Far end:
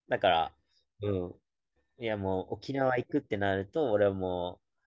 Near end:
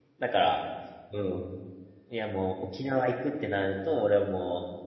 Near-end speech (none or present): none